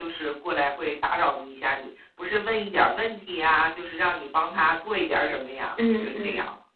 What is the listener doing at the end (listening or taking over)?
taking over